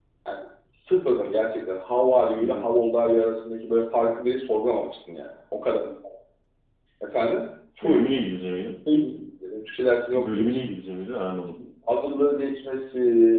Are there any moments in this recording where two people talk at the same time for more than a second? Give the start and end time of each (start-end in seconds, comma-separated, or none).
none